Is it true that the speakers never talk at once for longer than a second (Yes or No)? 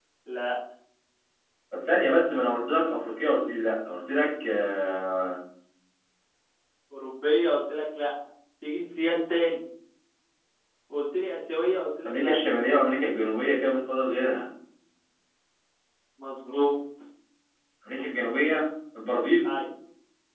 Yes